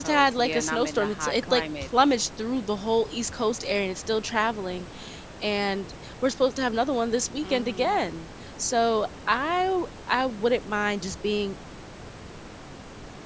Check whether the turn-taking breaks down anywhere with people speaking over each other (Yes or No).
Yes